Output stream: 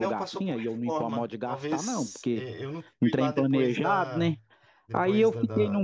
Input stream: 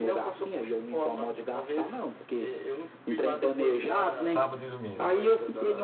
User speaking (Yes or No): Yes